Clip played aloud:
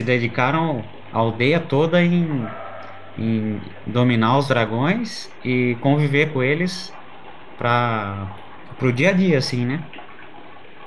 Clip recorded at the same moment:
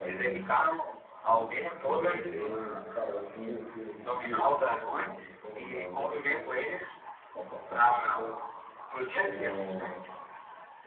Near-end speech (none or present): present